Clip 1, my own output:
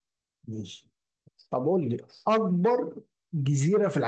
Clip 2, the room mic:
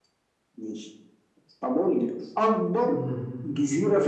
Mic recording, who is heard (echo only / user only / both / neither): both